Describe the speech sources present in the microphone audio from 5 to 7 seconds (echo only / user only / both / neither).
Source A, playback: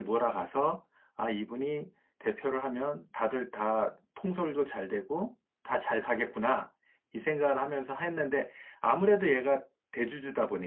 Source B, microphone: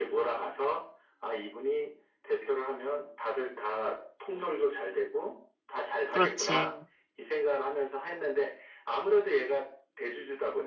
both